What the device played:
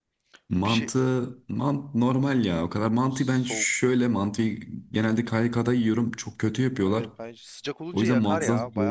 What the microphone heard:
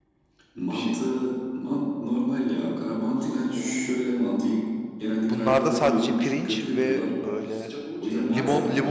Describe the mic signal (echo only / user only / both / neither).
both